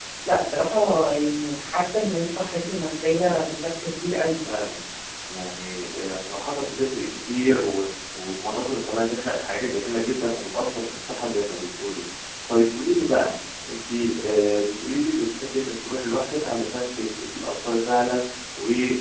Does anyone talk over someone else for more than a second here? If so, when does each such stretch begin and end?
none

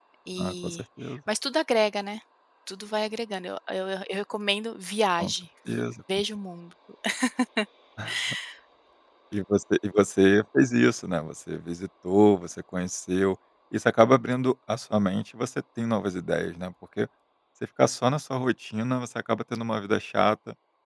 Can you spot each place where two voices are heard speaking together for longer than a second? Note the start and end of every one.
none

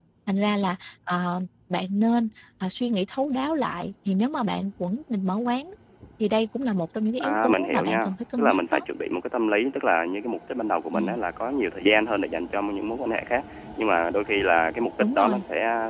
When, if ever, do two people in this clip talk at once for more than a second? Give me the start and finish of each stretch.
7.2-8.8

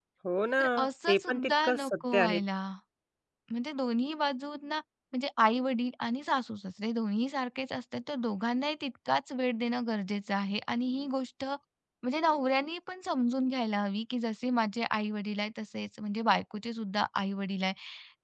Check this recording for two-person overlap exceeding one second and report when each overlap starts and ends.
1.1-2.4

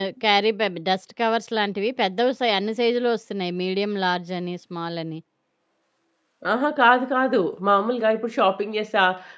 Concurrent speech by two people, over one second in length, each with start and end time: none

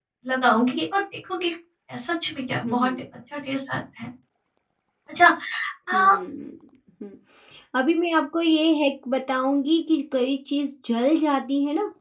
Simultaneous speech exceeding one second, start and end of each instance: none

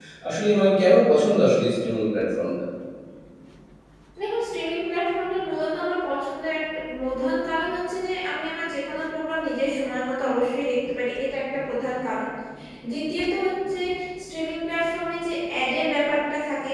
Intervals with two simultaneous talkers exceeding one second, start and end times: none

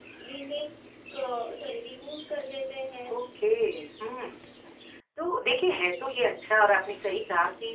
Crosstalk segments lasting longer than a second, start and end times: none

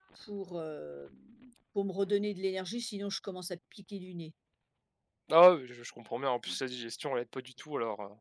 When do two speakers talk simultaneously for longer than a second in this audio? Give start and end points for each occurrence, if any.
none

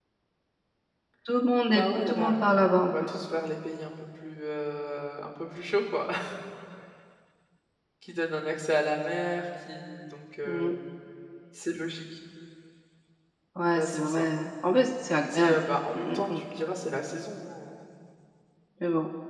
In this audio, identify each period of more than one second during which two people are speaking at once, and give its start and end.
1.7-3.1

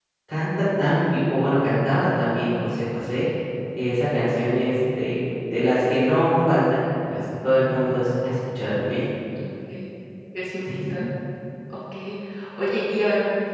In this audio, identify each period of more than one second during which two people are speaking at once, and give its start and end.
none

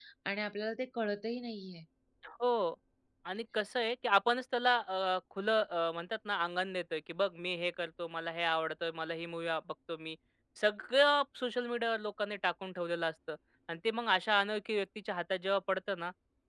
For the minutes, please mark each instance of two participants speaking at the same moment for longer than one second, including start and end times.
none

